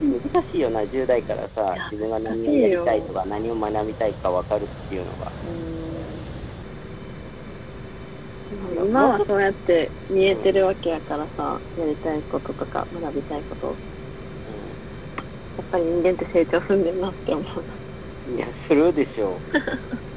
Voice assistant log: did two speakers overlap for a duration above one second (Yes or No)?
Yes